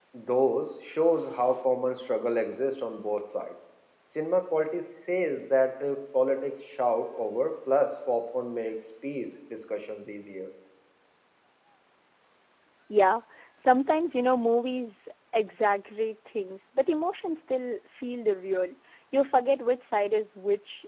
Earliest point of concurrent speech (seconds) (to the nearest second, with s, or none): none